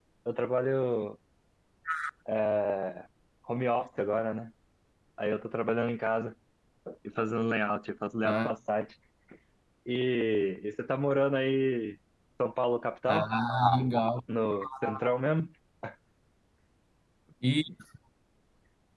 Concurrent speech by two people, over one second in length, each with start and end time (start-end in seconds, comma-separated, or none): none